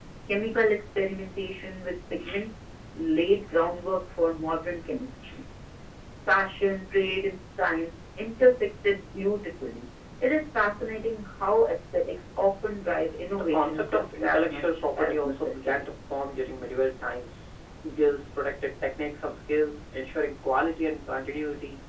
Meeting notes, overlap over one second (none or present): present